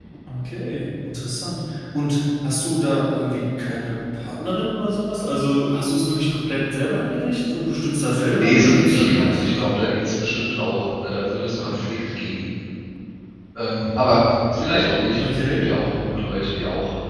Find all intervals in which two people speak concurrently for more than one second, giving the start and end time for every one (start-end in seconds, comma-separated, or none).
8.3-9.8